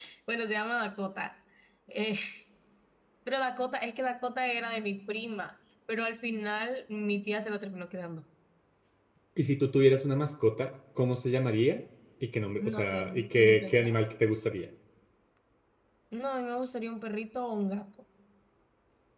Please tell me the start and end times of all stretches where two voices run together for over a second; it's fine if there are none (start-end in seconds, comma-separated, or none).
12.6-13.9